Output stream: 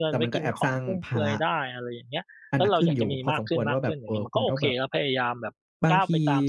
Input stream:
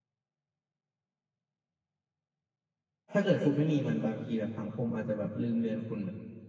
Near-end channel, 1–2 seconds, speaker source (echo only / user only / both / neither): neither